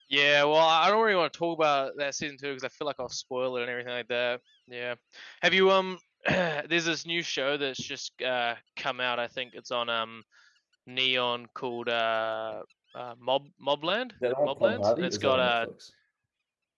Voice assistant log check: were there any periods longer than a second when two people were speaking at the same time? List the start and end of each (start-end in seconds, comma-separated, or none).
14.4-15.7